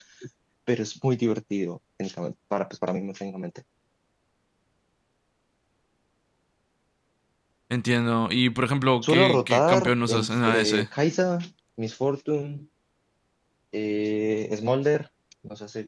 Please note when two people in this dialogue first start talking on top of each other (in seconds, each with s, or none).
9.0 s